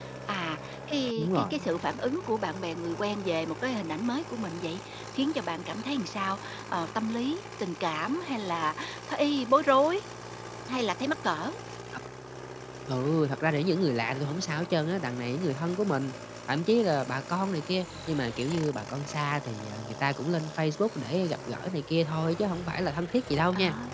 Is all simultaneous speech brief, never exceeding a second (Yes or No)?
Yes